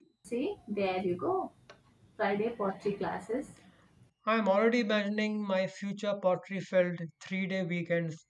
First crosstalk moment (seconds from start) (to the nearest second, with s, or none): none